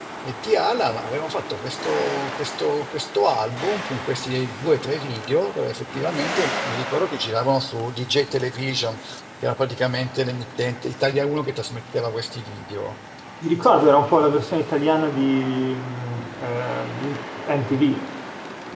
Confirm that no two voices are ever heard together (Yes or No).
Yes